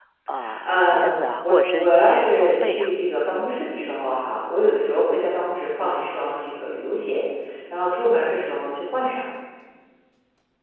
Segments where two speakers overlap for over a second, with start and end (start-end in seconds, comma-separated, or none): 0.7-2.9